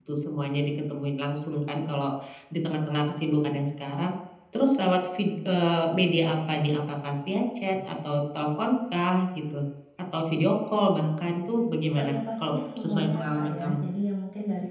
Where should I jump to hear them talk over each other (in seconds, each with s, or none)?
12.0 s